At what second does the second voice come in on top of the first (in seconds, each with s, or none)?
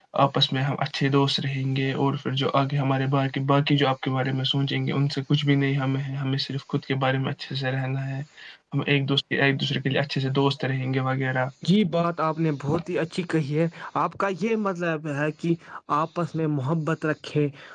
none